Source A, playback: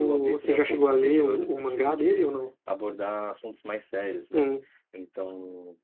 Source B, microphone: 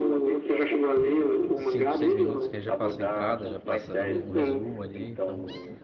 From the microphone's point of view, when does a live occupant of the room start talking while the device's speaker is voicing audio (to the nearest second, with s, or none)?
2 s